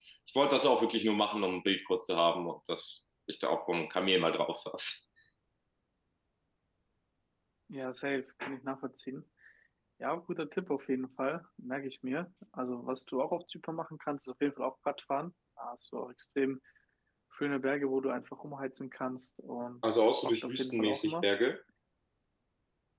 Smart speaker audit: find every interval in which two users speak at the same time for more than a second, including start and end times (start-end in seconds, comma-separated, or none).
19.8-21.3